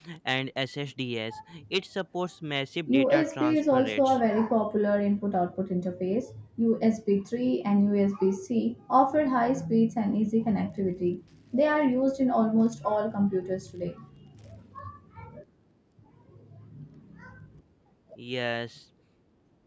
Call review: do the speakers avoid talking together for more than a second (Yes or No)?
No